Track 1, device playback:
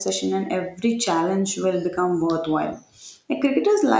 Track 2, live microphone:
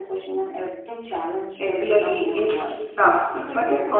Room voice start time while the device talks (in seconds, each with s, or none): 1.6 s